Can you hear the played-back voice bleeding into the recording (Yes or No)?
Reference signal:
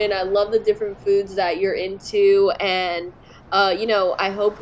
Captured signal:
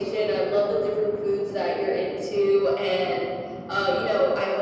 Yes